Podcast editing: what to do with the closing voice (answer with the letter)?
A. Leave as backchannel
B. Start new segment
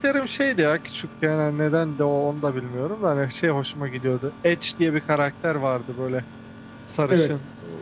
A